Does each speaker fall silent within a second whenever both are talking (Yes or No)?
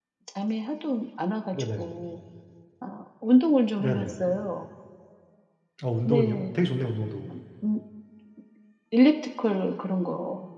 Yes